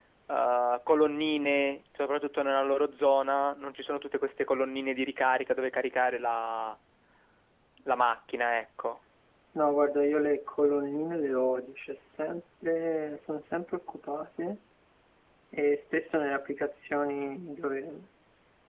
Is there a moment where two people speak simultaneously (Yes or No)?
No